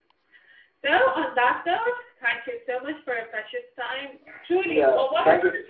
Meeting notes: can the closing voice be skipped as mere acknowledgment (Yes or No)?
No